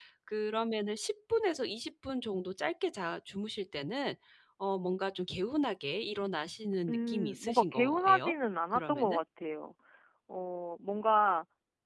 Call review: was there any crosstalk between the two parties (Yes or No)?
Yes